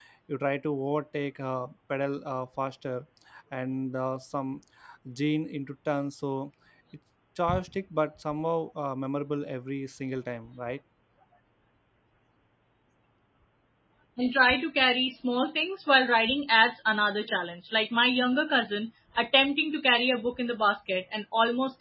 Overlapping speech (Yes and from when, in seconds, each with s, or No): No